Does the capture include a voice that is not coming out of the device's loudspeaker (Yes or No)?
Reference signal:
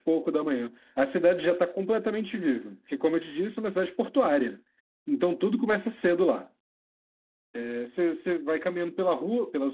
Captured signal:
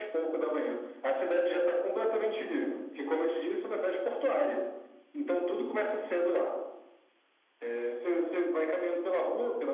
No